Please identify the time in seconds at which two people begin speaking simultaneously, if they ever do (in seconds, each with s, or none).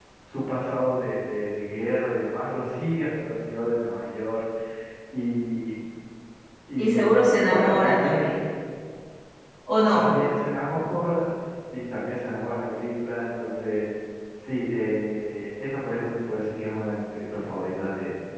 6.8 s